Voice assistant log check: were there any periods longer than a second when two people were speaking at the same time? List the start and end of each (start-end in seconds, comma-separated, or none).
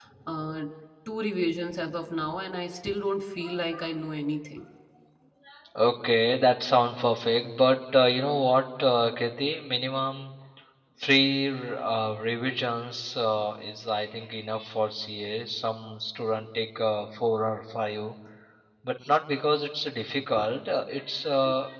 none